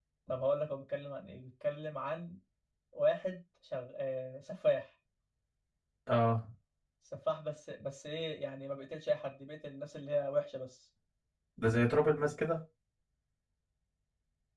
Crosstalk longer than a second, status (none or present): none